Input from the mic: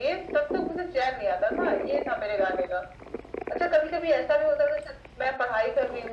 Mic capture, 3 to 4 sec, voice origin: echo only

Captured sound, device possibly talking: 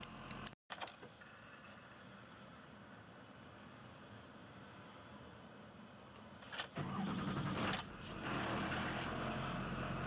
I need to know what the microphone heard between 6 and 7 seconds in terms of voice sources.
neither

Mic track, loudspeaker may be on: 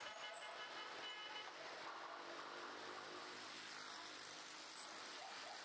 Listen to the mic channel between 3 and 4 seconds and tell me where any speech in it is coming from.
neither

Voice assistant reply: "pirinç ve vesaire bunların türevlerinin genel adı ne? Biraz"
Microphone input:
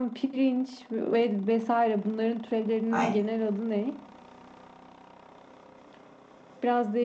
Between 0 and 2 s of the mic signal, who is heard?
echo only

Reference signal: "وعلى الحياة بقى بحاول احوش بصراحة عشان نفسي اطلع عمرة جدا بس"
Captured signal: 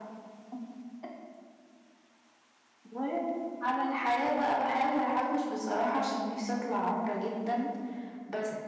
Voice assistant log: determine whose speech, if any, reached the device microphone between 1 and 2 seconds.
neither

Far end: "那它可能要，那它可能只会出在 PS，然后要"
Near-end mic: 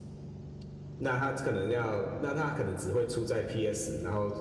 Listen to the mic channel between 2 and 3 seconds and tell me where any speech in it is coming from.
echo only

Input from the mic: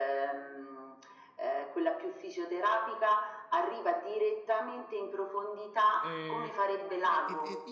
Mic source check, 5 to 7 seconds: both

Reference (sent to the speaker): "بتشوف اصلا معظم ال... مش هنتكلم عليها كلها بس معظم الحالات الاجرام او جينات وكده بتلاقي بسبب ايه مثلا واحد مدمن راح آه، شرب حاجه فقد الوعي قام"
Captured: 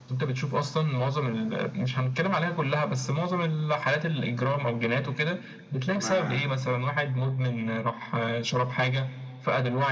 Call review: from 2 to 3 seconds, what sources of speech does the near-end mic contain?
echo only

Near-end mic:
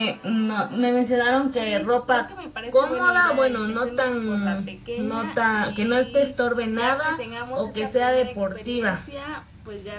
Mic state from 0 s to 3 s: both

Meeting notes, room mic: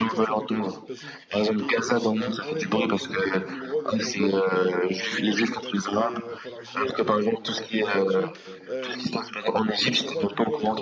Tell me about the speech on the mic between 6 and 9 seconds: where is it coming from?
both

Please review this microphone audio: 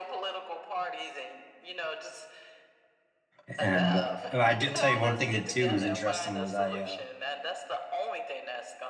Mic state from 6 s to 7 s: both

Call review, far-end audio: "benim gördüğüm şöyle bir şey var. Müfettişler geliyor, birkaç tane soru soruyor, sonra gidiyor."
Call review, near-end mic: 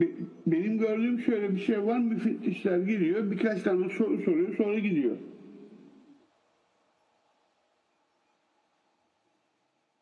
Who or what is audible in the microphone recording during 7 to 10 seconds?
neither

